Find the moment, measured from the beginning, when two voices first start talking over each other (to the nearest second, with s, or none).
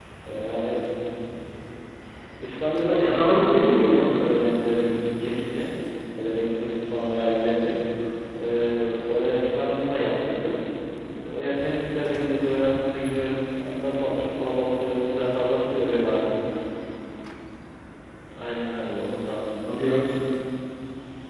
3 s